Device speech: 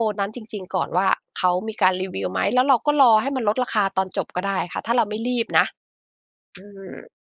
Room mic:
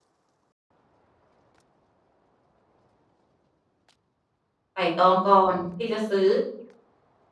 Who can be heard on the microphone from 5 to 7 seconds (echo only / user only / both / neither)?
user only